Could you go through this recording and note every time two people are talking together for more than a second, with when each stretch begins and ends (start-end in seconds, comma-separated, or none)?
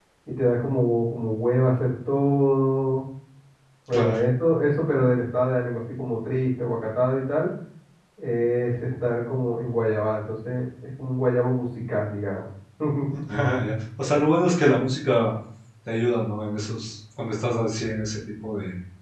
none